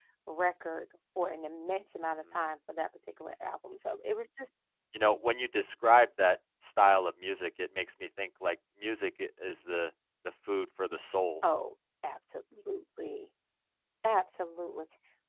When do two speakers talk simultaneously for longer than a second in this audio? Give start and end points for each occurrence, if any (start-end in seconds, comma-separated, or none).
none